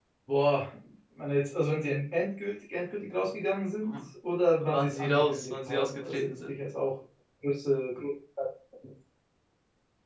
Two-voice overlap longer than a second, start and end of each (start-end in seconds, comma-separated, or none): 4.6-6.5